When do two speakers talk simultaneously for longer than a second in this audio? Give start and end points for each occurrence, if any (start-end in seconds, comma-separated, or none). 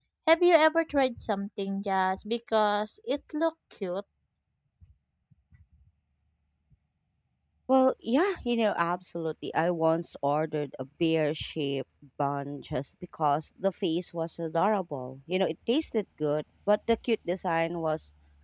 none